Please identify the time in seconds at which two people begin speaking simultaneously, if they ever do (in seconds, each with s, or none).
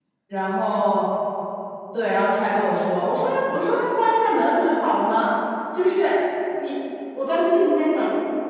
none